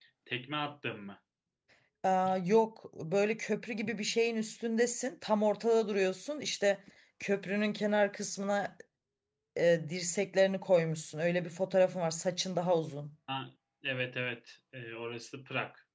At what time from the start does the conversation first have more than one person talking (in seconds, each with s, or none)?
none